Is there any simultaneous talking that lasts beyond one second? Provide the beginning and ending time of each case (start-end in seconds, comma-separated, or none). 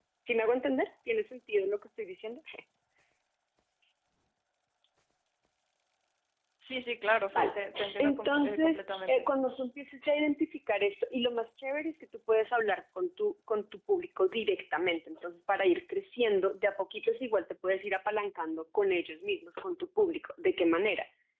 8.0-9.3